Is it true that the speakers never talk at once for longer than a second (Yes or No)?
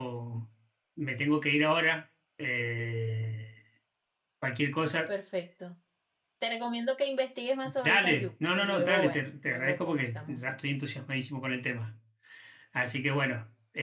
No